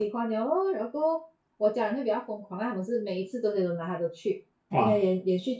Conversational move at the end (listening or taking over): listening